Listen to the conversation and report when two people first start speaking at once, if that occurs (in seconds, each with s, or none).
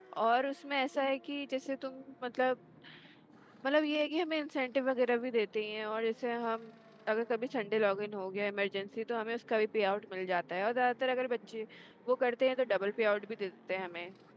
none